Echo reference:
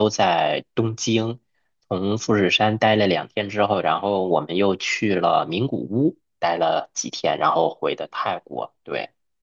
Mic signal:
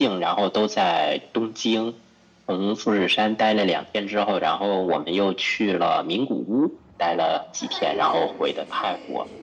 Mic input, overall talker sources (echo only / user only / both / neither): both